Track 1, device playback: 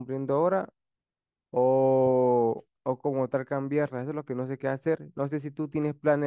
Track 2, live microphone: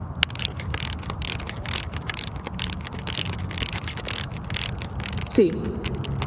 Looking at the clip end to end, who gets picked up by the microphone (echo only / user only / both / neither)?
user only